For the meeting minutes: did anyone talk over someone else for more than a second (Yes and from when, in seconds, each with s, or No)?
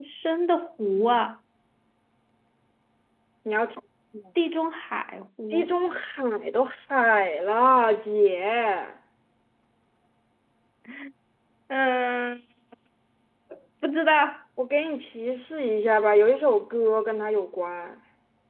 No